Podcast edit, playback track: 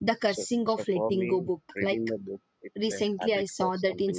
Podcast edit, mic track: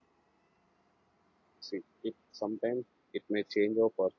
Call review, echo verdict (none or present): none